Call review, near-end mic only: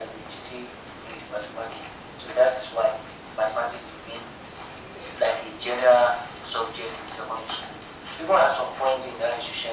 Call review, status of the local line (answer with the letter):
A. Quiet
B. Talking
A